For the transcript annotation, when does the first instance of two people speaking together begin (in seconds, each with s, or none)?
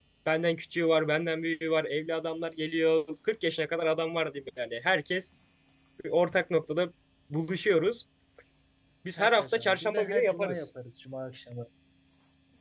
9.2 s